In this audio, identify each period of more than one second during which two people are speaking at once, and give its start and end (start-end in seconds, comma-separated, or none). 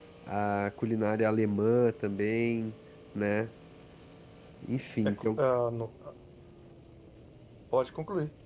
none